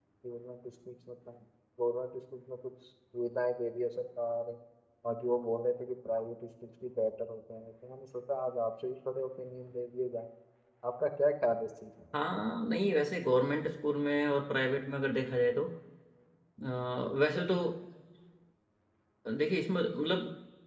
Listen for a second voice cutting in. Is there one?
No

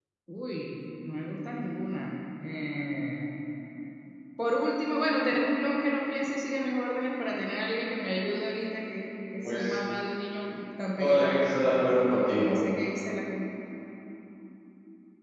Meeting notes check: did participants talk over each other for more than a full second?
No

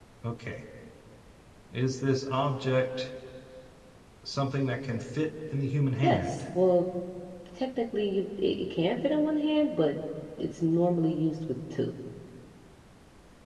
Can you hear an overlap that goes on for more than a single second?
No

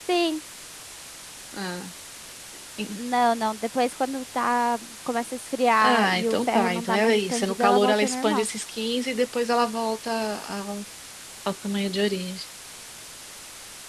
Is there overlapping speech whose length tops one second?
Yes, from 5.8 s

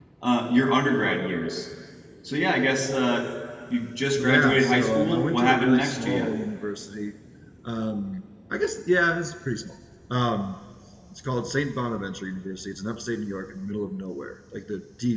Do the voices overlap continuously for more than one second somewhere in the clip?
Yes, from 4.2 s

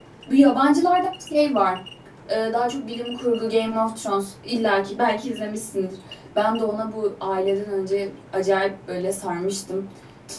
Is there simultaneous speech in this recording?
No

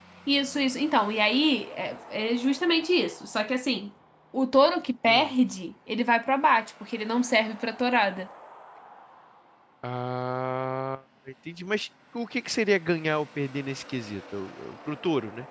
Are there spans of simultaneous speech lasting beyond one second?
No

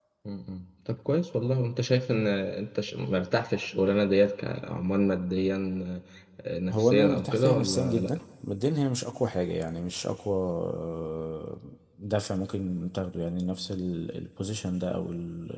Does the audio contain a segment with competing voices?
Yes, from 6.7 s

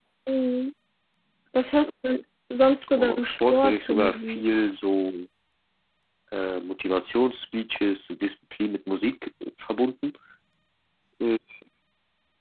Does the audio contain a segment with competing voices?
Yes, from 3.0 s

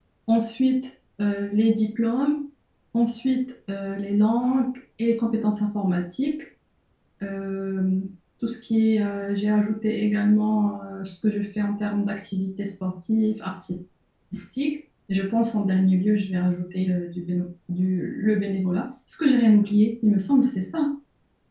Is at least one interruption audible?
No

